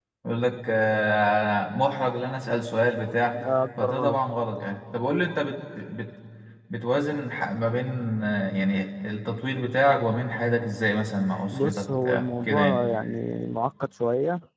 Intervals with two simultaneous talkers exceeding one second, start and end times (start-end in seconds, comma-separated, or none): 11.5-12.9